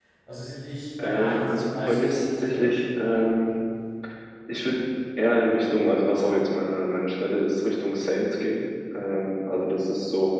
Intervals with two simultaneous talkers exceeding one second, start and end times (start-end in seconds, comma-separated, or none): 1.0-2.7